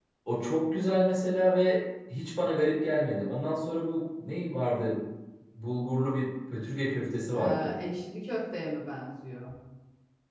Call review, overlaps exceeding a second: none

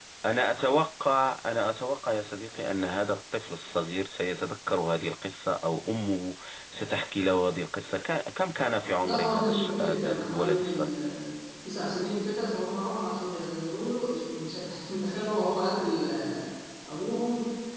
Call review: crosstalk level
present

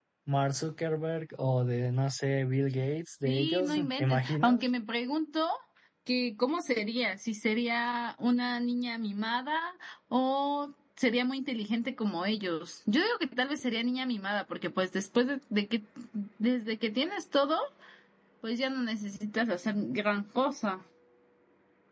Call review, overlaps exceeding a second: present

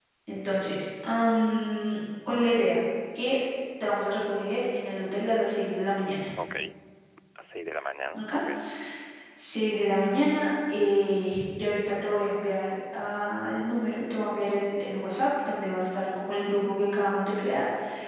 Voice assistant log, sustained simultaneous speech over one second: none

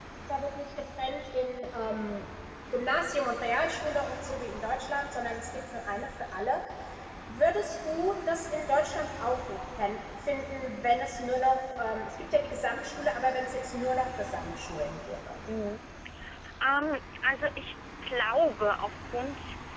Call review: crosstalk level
none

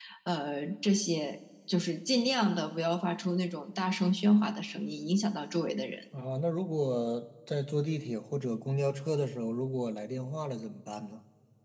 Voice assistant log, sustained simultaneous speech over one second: none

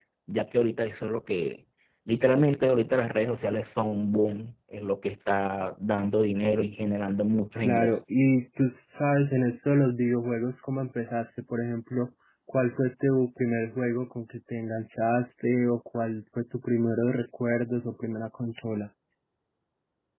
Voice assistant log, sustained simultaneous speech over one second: none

